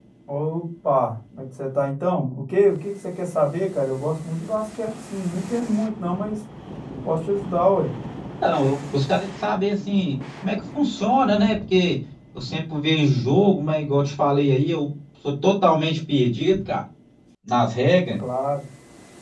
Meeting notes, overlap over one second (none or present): none